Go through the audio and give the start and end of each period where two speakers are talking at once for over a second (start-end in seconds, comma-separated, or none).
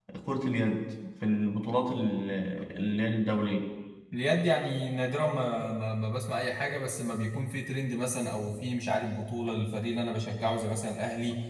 none